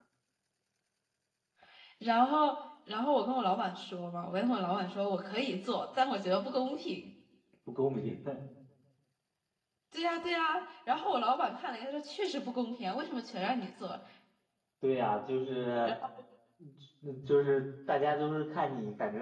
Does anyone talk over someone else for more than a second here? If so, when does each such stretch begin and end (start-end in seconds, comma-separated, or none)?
none